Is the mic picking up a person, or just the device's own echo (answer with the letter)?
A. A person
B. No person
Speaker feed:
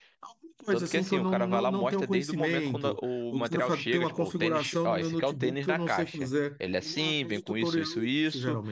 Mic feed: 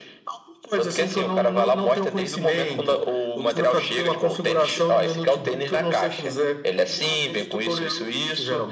B